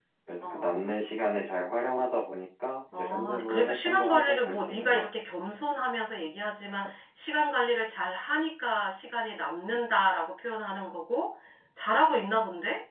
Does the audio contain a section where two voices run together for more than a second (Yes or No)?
Yes